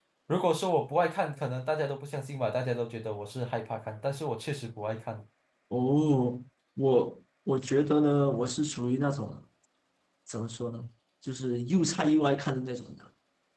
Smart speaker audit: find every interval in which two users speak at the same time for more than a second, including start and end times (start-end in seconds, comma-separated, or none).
none